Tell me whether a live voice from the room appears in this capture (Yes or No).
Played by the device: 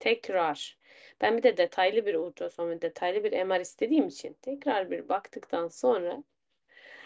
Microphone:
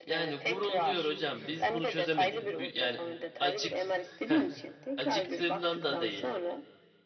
Yes